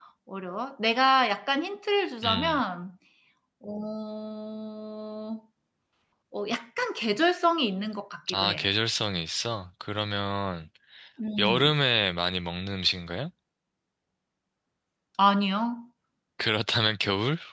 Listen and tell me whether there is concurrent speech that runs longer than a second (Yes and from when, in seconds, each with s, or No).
No